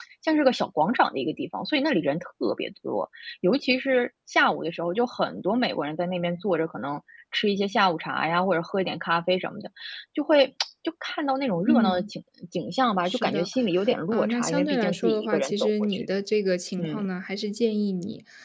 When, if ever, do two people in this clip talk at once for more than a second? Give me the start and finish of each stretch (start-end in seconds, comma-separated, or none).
14.1-16.1